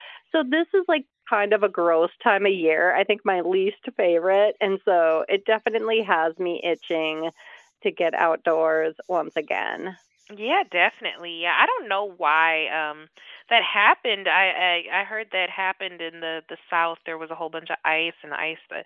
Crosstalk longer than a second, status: none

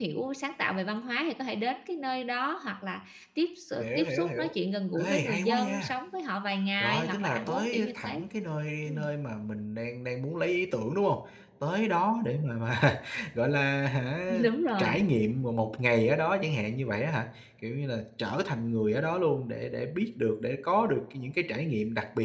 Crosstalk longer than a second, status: present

